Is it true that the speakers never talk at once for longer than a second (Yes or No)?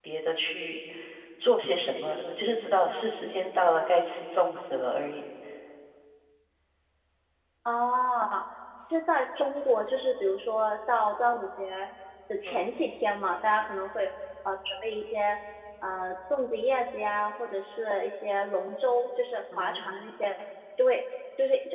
Yes